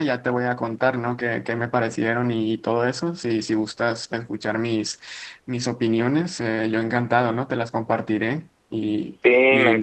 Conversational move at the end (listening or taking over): taking over